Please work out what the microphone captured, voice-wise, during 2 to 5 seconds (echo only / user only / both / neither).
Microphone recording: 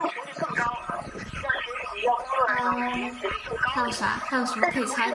both